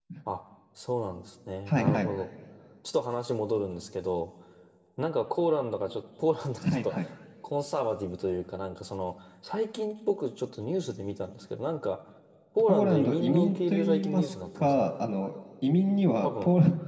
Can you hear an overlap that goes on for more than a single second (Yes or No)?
Yes